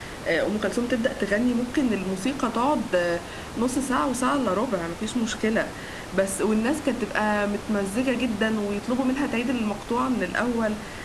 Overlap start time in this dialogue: none

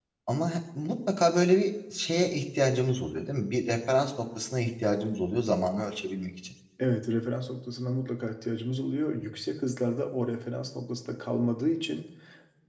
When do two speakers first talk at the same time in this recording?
none

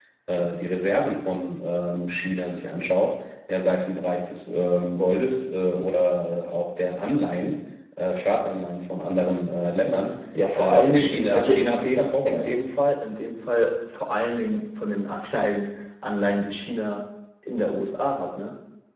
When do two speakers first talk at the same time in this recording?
10 s

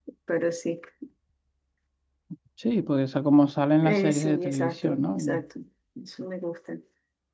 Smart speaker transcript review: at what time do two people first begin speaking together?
4 s

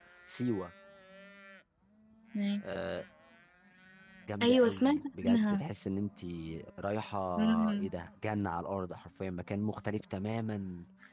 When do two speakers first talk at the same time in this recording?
4 s

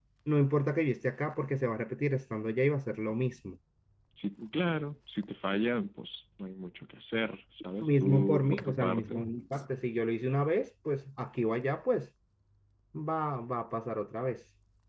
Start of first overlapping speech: 8 s

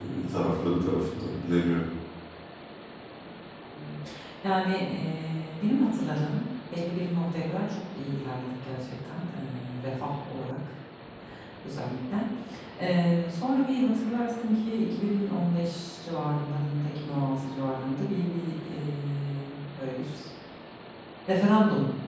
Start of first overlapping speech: none

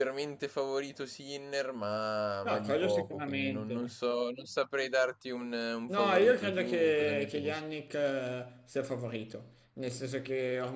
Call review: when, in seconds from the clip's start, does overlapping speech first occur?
2 s

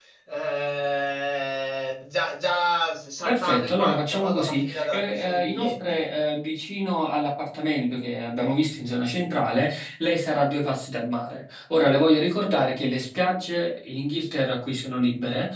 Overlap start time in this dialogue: 3 s

